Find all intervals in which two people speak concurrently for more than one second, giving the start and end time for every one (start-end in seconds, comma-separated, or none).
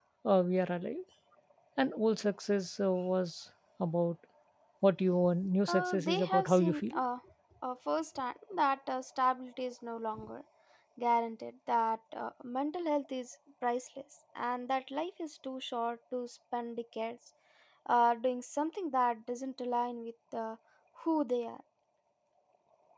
5.7-7.0